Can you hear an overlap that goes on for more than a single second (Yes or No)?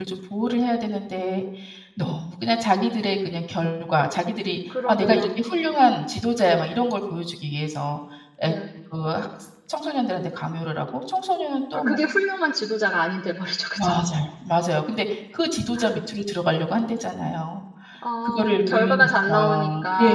Yes